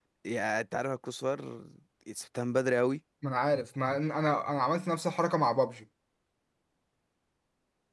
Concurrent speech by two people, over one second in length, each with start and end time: none

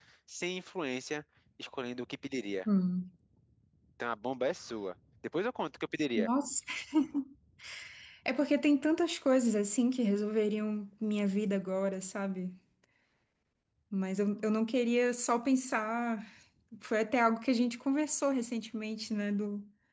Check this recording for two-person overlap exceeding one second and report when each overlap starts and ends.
none

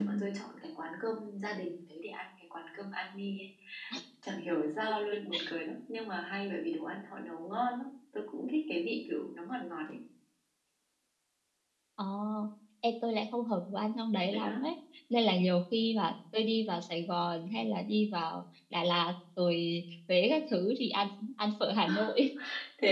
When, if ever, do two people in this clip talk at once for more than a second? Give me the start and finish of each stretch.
none

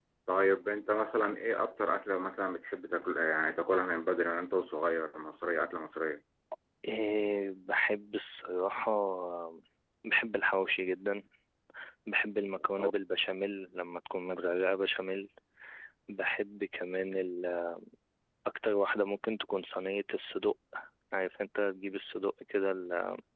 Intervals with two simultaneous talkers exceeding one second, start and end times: none

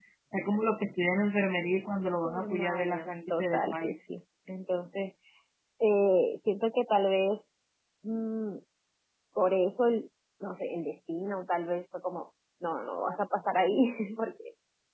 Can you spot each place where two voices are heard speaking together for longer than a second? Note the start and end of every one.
2.2-3.9

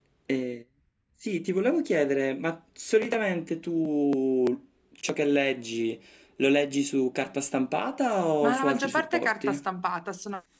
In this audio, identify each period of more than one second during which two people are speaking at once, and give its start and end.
8.4-9.6

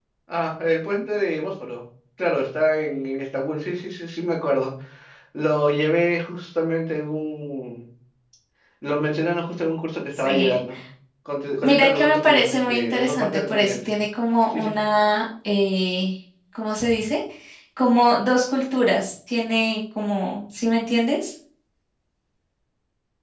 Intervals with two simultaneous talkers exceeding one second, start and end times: 11.6-13.9

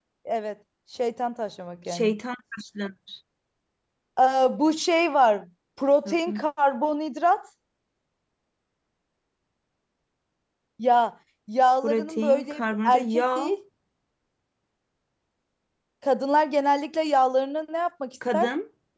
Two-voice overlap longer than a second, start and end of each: 11.8-13.2

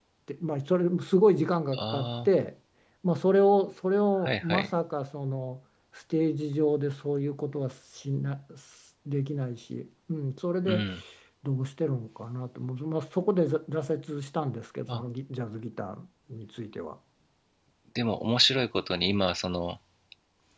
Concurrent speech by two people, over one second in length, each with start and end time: none

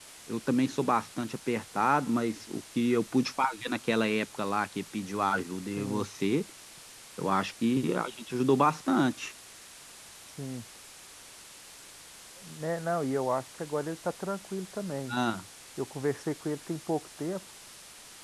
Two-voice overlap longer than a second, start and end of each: none

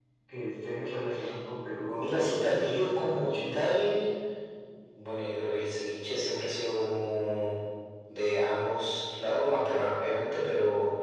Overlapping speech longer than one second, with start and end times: 1.9-3.6

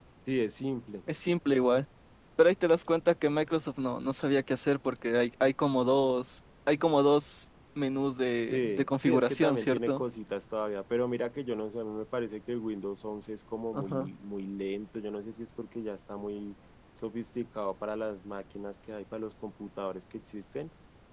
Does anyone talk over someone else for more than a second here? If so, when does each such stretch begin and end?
8.4-10.0

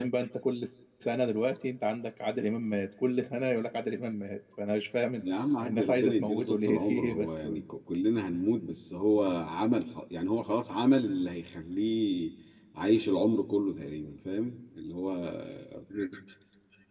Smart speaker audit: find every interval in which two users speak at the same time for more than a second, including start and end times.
5.6-7.5

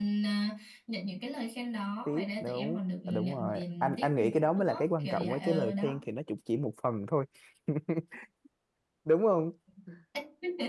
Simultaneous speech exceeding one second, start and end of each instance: 2.1-6.0

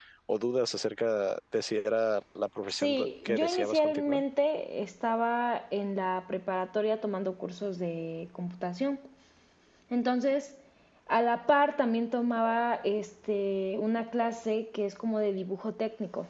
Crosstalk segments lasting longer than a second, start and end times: 2.7-4.2

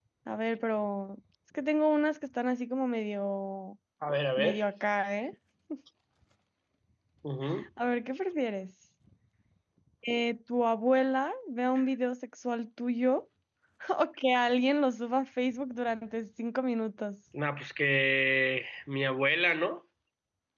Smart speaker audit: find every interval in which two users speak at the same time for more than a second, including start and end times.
none

